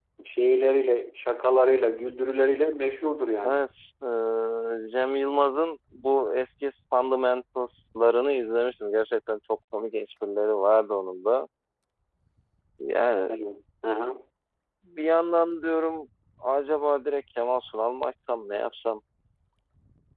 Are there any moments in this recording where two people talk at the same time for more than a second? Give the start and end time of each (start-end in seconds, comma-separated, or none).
none